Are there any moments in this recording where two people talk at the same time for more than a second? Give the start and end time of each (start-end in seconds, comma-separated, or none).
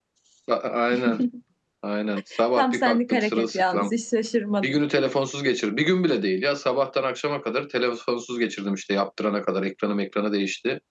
2.6-3.9